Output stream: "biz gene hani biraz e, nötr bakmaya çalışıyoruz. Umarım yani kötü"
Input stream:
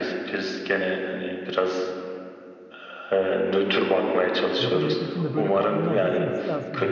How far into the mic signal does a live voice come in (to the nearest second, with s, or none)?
5 s